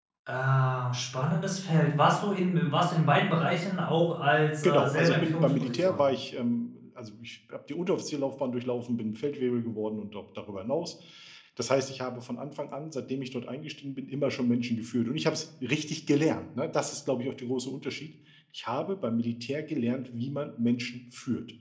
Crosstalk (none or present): present